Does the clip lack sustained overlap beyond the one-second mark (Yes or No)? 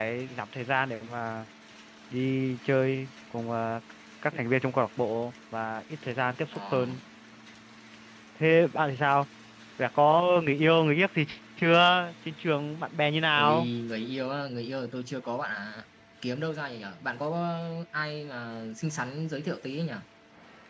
Yes